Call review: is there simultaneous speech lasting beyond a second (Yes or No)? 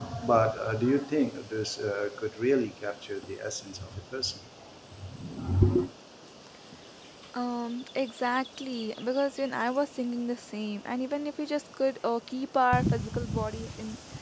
No